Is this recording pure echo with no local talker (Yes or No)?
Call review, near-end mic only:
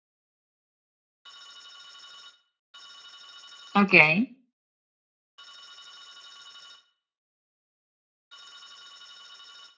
No